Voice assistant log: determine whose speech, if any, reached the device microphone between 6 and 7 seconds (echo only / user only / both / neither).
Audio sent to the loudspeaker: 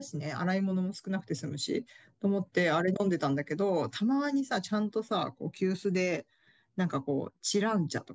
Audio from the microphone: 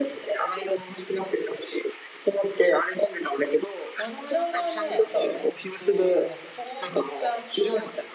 both